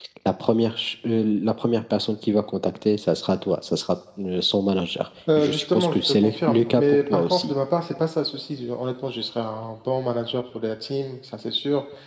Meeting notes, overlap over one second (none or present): present